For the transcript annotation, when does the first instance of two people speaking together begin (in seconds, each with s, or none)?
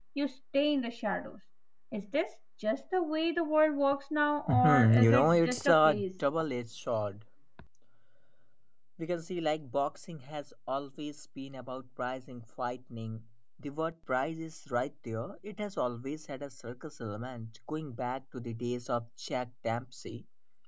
4.5 s